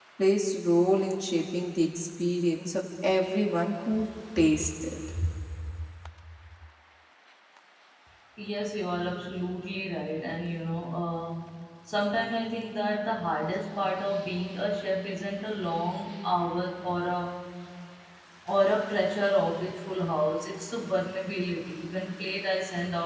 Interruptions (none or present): none